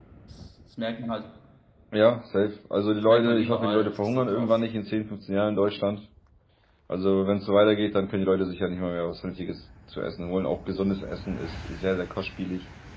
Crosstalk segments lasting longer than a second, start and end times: 3.1-4.6

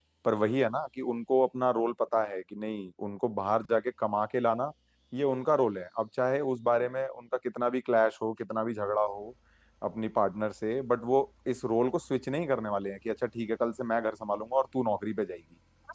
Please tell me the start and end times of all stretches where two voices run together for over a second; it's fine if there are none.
none

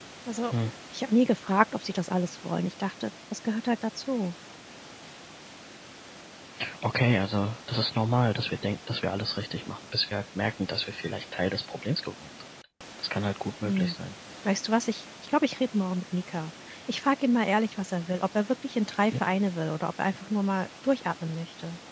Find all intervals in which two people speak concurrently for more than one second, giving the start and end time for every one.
none

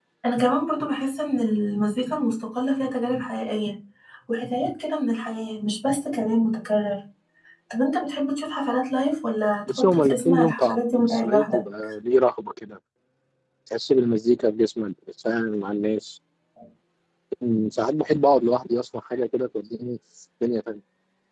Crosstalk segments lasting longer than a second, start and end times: 9.7-11.6

